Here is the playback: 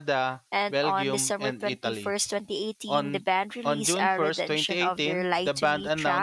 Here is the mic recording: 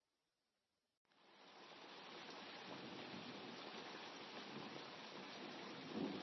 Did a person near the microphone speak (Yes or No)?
No